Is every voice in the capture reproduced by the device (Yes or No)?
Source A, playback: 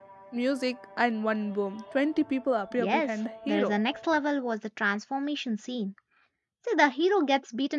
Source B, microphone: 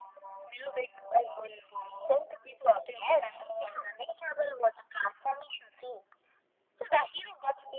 Yes